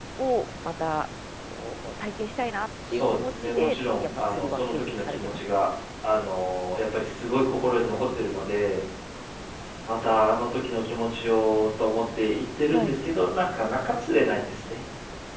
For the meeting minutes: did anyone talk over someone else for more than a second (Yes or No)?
Yes